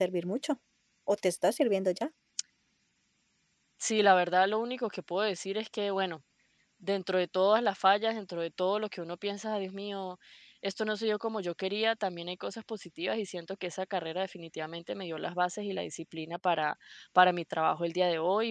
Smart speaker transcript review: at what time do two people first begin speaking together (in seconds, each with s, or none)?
none